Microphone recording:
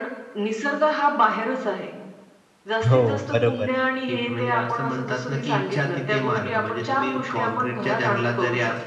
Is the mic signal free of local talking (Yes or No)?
No